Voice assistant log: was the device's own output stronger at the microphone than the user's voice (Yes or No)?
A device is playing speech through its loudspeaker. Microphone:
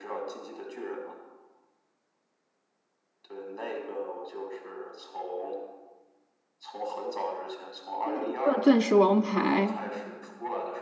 No